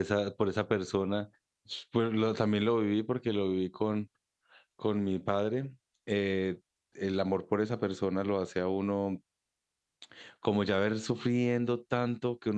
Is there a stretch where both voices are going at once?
No

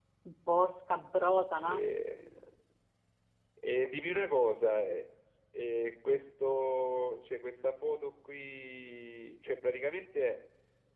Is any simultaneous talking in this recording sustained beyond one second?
No

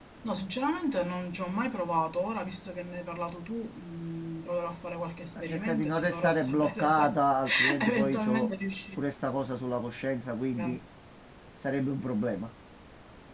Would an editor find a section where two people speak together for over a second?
Yes, from 5.4 s

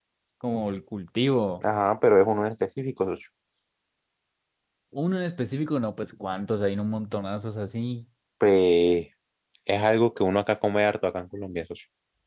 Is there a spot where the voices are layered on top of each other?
No

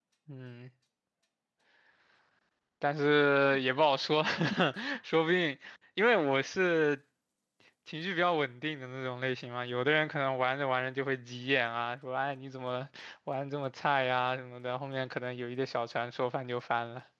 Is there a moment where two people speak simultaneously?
No

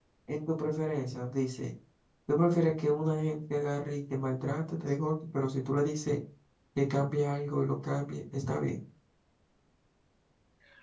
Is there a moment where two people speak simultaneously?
No

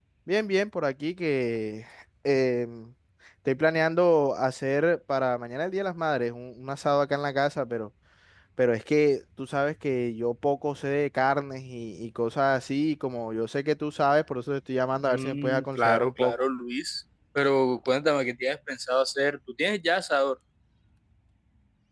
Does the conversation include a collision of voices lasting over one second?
Yes, from 15.0 s

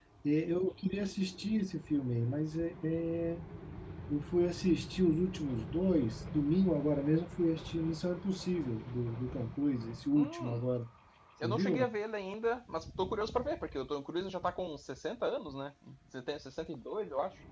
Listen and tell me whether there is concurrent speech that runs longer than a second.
No

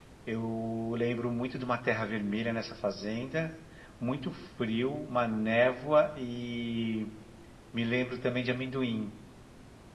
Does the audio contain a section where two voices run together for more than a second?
No

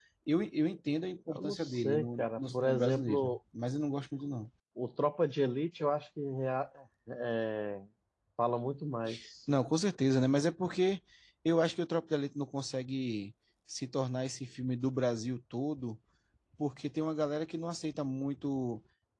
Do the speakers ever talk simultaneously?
Yes, from 1.3 s

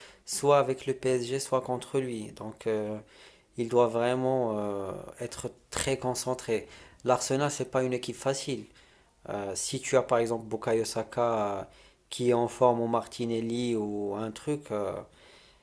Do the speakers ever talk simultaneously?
No

